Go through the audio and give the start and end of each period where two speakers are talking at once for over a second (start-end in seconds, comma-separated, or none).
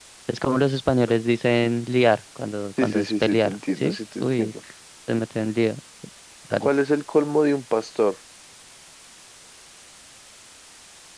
2.8-4.5